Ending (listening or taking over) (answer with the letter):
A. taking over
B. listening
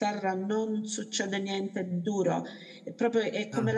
B